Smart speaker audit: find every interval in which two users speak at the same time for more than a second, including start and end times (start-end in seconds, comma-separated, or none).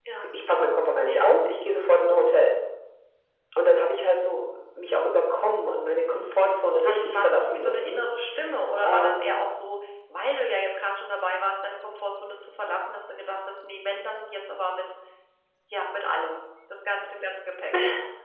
6.1-8.0